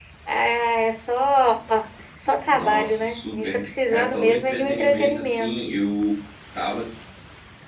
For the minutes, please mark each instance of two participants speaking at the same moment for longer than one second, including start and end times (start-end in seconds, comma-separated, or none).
2.5-5.5